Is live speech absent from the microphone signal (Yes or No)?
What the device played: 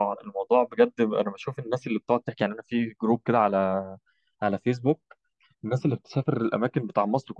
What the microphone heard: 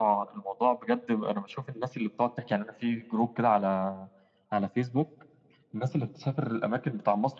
Yes